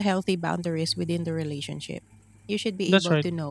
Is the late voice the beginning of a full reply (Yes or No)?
No